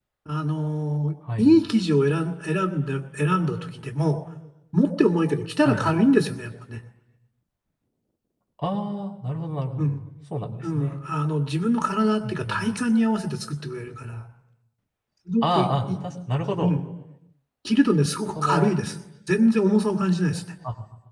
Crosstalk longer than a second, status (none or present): none